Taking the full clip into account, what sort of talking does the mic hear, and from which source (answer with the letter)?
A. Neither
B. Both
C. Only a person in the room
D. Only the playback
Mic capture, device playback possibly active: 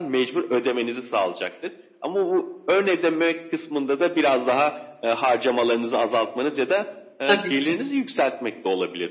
B